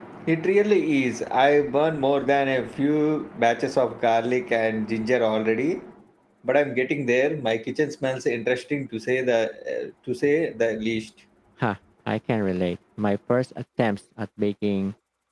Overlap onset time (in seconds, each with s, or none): none